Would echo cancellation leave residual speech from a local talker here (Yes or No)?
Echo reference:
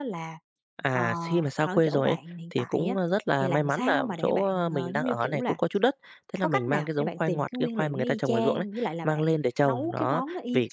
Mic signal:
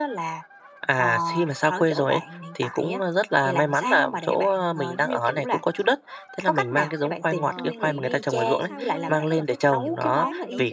Yes